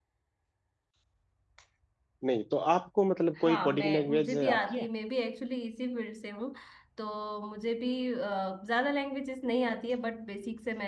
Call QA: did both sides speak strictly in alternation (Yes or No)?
No